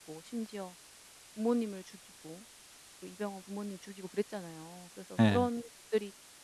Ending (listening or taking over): listening